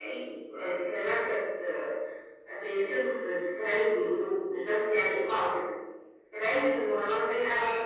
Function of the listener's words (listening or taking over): listening